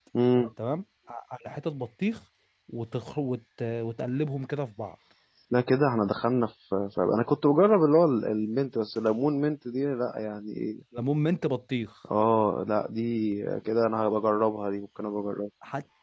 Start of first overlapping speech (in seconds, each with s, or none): none